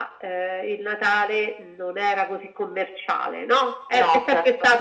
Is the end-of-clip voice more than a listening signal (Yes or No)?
No